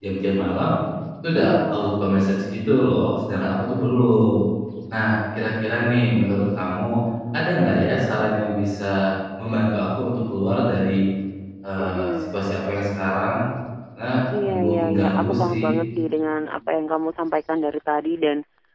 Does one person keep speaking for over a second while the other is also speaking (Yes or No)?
Yes